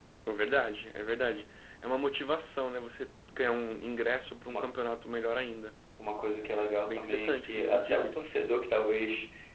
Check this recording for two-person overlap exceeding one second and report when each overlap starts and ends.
6.8-8.2

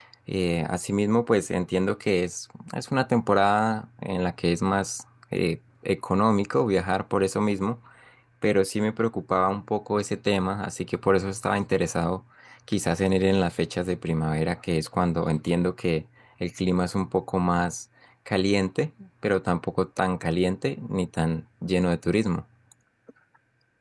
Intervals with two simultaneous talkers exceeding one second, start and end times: none

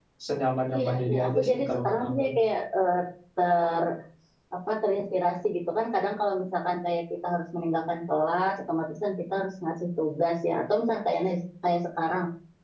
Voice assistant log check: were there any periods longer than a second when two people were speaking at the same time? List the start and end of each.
0.7-2.3

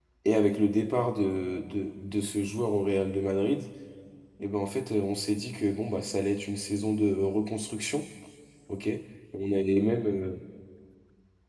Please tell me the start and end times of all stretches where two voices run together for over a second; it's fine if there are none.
none

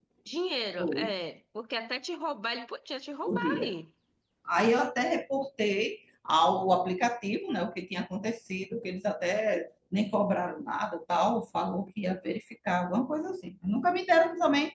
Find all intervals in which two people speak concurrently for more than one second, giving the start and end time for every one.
none

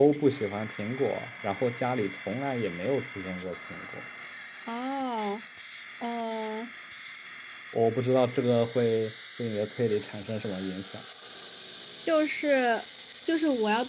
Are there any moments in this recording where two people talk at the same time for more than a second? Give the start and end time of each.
none

